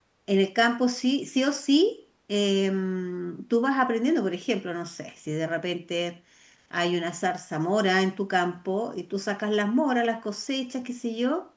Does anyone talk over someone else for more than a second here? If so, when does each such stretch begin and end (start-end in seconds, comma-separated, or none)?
none